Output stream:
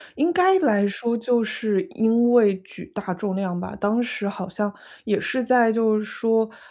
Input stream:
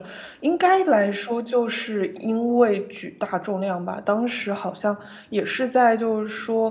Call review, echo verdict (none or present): present